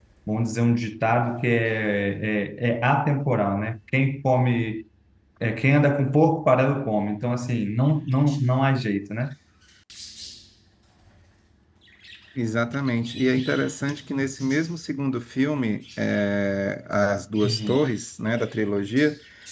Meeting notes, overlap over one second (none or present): none